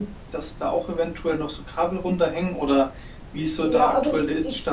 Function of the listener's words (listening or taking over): taking over